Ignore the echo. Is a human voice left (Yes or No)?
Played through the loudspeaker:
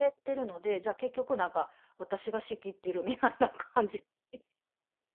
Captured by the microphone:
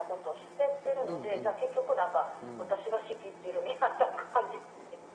Yes